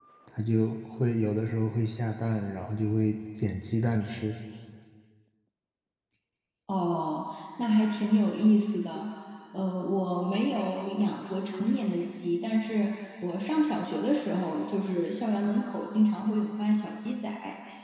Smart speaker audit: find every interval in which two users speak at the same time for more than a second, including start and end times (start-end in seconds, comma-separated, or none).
none